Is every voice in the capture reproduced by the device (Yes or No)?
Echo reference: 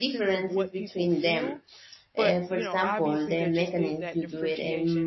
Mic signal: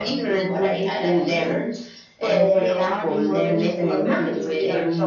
No